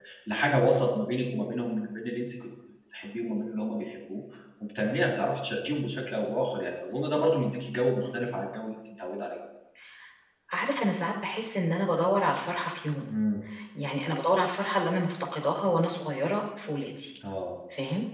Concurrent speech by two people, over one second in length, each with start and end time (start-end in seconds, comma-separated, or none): none